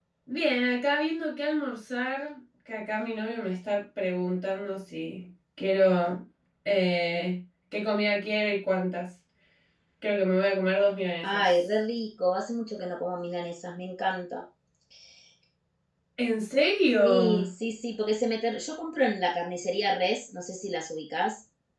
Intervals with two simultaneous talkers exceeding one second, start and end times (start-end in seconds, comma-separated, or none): none